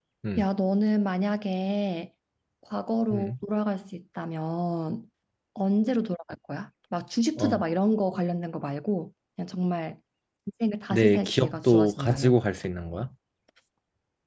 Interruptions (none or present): present